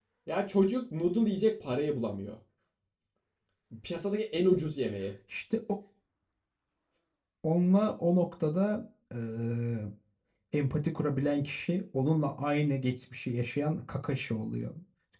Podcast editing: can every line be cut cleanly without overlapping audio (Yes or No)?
Yes